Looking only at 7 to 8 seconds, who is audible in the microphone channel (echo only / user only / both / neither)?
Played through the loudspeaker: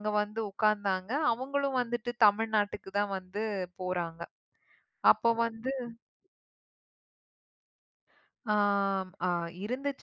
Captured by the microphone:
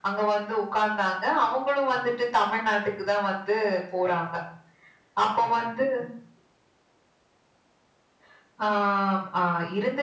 neither